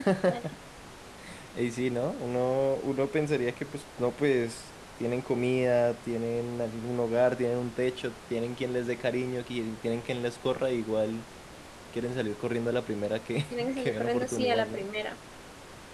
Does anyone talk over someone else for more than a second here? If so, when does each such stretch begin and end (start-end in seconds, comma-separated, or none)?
13.6-14.9